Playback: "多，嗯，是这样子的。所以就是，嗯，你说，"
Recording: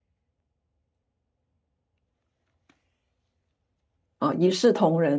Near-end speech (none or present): present